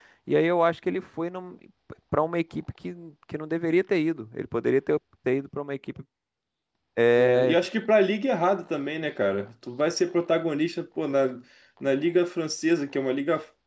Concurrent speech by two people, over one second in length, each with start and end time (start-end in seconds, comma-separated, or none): none